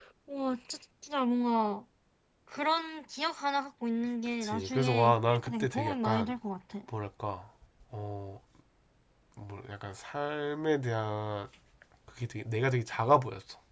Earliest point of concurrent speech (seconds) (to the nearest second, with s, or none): 4 s